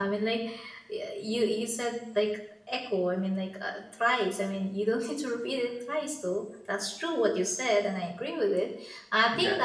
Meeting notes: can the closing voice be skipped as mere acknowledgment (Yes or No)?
No